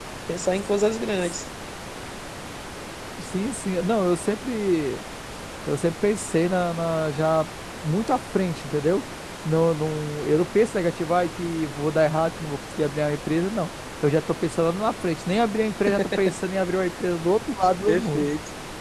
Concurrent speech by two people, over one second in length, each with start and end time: none

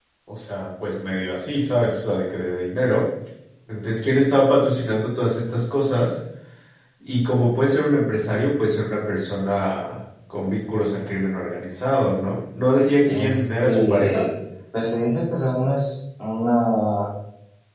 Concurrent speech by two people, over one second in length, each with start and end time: 13.0-14.3

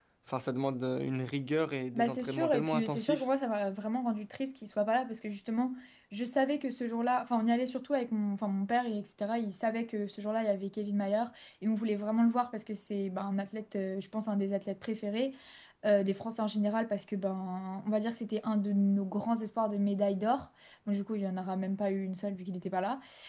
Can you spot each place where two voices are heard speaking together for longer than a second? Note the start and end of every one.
1.9-3.2

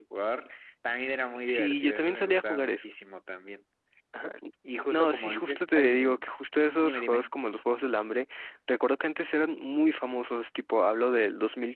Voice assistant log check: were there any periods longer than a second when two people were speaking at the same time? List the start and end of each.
1.4-2.9, 4.9-6.2

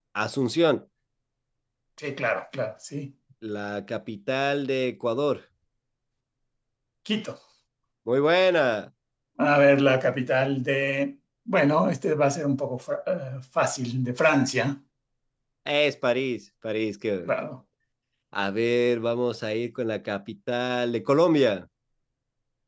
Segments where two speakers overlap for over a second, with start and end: none

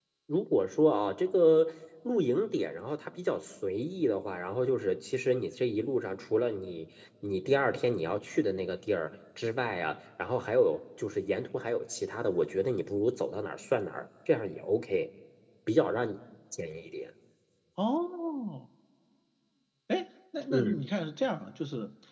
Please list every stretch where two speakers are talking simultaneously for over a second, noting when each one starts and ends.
none

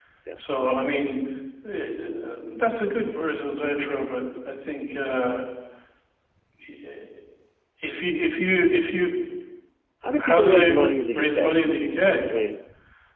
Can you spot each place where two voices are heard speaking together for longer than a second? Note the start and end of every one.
10.2-11.6

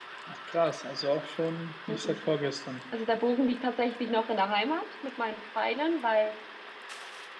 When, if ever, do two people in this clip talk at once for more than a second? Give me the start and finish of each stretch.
none

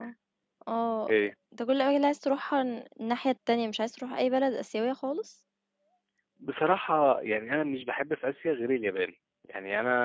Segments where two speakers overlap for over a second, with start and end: none

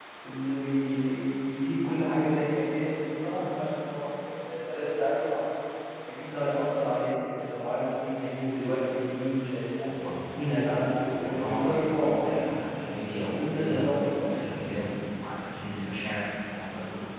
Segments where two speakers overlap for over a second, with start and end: 11.1-12.3, 13.1-14.3

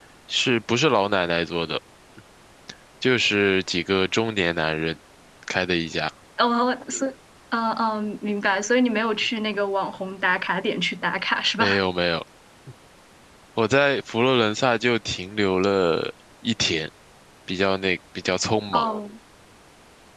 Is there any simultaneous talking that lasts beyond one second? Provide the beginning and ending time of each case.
none

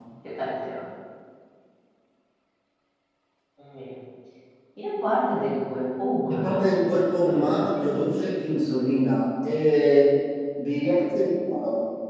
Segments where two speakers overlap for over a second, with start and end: 7.2-8.6

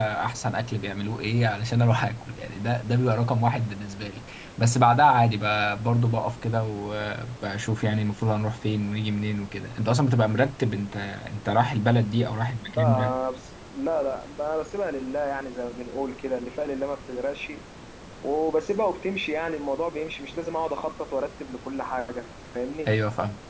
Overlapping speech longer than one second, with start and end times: none

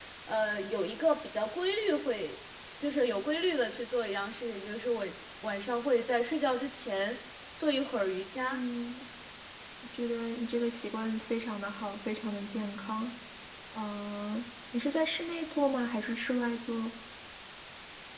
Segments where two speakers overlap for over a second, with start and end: none

